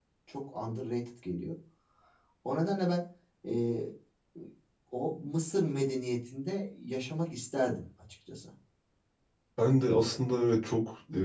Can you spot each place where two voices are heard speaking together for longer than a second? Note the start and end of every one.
none

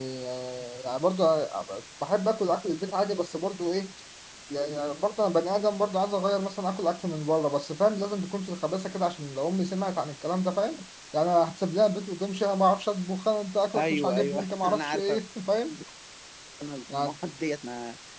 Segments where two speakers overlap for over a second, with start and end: 13.7-15.2

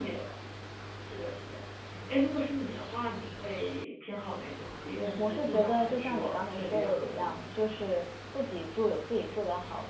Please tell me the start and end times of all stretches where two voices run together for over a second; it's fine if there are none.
5.2-7.3

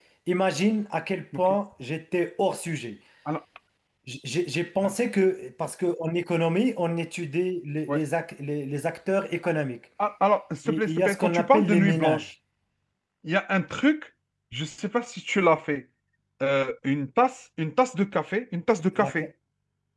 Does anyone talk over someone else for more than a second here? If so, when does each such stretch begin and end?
10.7-12.3

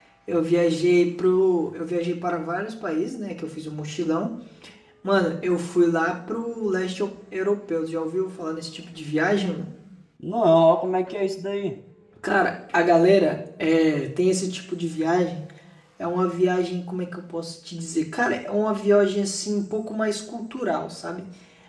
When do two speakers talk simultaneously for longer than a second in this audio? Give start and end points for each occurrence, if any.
none

